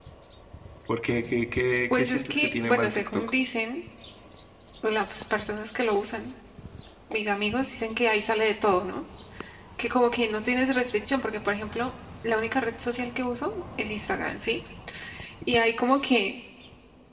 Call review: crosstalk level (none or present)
present